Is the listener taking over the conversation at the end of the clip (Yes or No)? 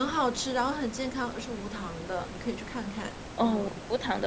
Yes